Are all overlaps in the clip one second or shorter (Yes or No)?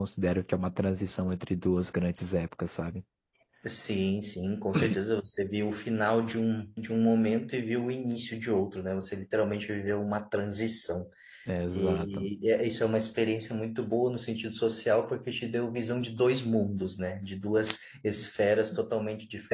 Yes